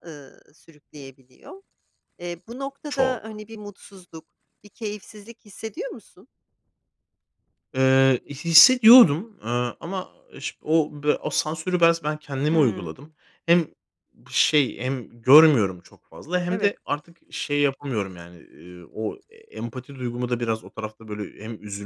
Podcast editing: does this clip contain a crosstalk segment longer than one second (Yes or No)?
No